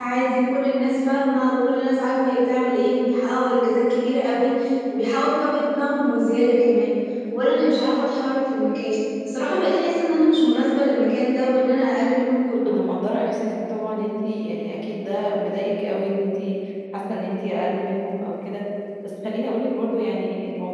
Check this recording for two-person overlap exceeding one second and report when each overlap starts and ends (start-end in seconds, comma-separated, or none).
none